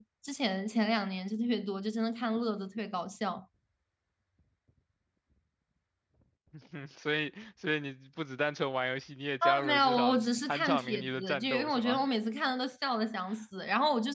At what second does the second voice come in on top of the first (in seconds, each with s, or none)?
9.4 s